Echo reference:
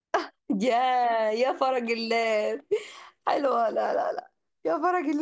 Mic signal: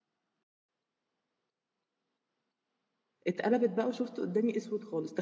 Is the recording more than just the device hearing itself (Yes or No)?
Yes